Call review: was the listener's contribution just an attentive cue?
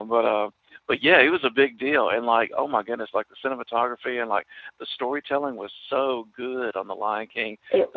Yes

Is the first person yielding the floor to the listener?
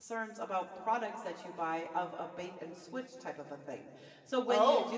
No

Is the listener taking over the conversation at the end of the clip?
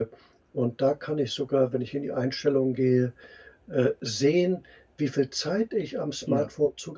No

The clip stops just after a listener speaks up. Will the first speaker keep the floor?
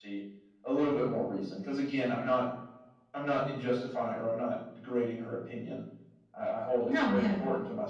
Yes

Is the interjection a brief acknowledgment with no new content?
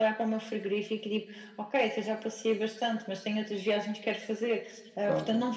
Yes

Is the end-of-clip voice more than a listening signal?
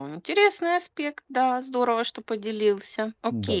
Yes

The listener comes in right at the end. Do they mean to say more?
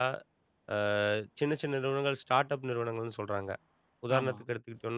No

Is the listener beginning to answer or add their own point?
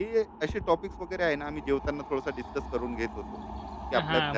Yes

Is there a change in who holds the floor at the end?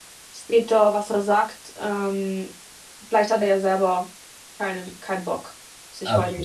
Yes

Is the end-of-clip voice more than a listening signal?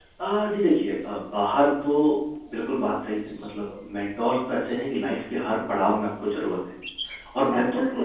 No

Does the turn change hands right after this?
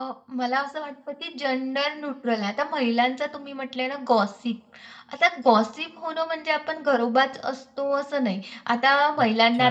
No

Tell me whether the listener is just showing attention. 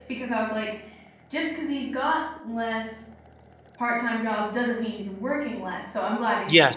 No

